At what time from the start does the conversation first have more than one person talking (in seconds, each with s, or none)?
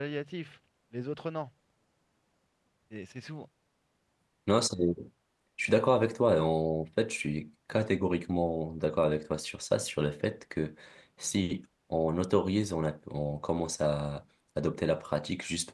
none